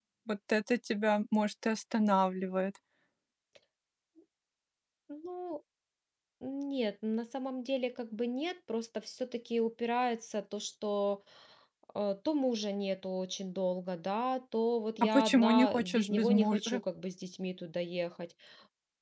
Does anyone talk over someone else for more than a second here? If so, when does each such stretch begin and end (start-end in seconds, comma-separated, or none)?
15.1-16.8